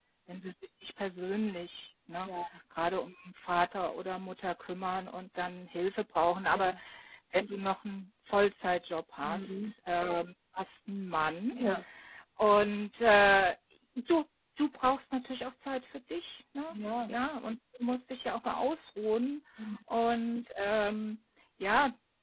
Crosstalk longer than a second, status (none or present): none